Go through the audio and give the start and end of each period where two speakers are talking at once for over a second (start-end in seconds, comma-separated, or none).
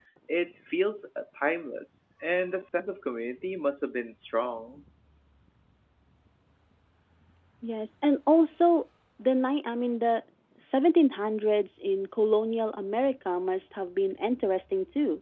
none